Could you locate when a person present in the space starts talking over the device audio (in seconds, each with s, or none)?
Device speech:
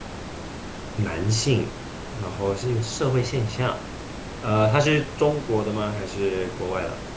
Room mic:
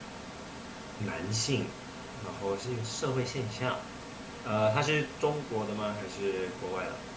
none